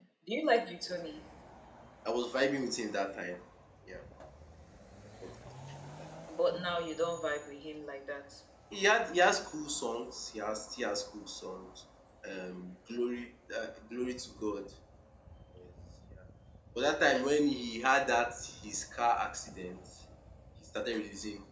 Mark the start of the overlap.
none

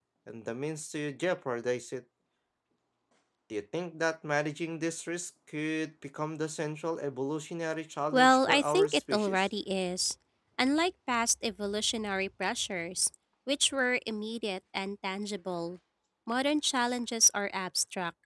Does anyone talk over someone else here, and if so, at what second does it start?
8.1 s

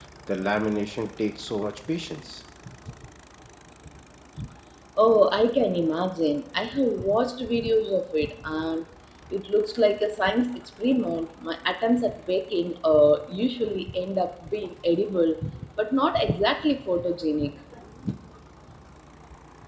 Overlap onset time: none

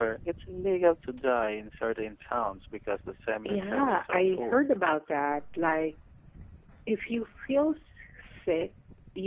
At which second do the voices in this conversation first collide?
3.4 s

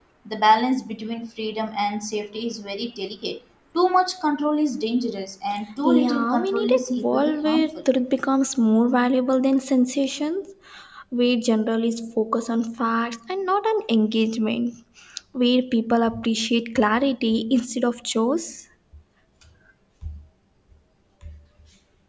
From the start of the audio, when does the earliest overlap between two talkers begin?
5.8 s

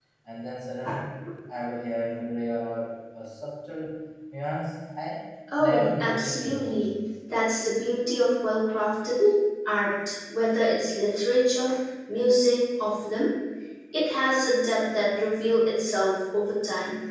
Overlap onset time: 5.5 s

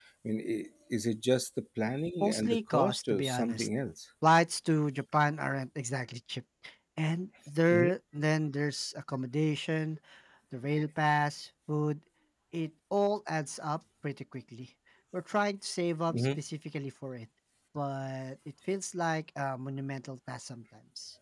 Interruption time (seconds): 2.2 s

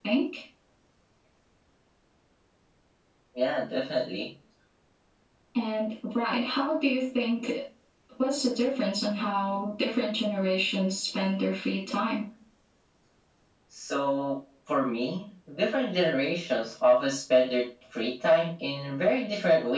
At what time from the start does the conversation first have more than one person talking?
none

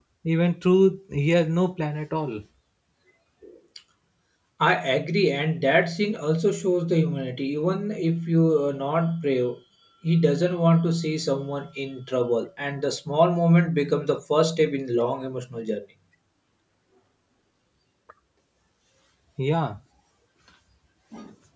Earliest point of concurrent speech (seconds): none

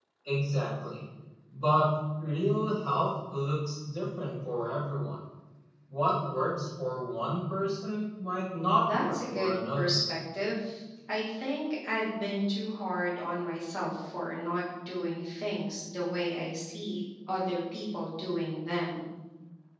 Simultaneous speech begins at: 8.7 s

